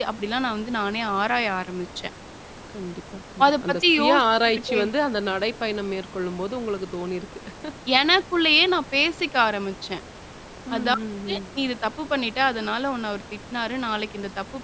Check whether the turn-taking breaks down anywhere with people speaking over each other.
Yes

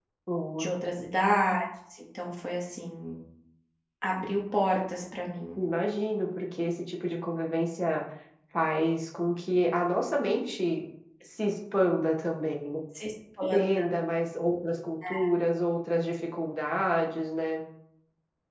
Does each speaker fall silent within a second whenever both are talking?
Yes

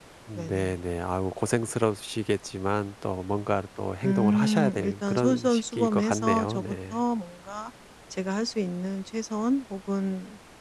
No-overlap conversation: No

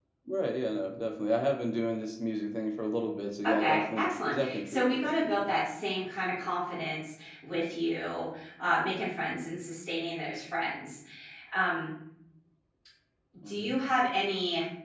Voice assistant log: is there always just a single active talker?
No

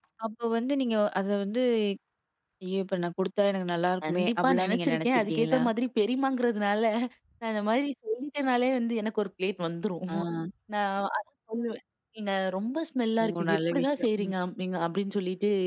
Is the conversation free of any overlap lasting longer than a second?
No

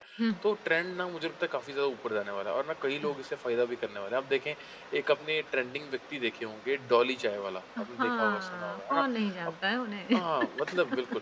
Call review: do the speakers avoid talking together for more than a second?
No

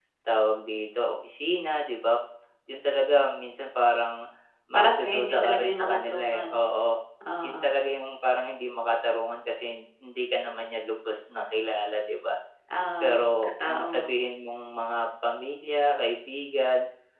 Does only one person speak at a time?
No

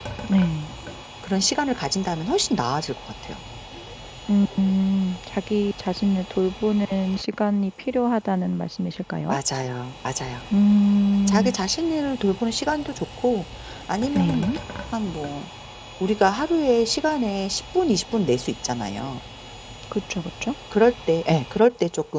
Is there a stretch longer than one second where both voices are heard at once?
No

